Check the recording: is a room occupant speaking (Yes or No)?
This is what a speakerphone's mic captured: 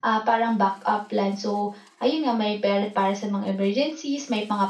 No